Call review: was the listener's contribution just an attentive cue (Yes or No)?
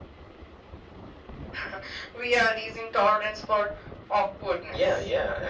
No